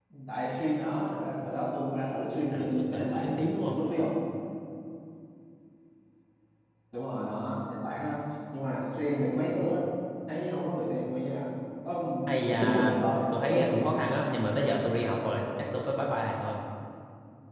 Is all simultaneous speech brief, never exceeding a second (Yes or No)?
No